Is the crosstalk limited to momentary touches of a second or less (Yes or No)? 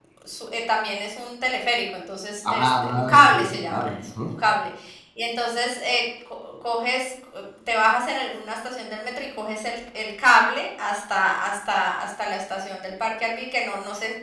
No